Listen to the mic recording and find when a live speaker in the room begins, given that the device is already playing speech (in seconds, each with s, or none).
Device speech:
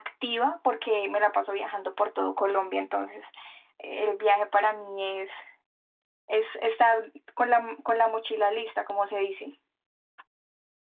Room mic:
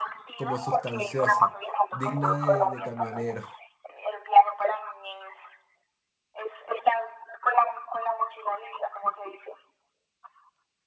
0.3 s